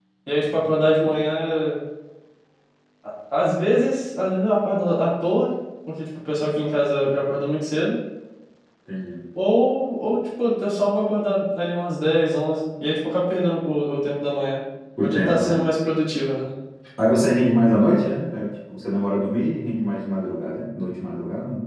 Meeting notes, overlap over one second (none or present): none